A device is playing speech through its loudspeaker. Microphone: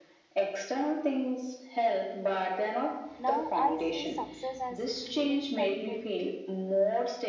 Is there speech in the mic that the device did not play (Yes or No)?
Yes